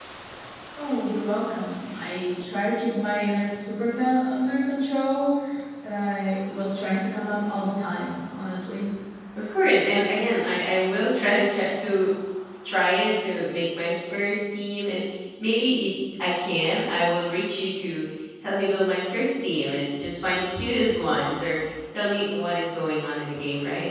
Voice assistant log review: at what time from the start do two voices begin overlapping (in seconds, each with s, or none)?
none